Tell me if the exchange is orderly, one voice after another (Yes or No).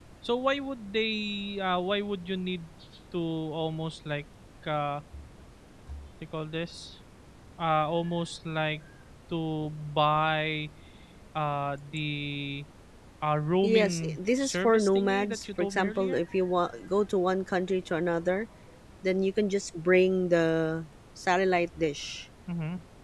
No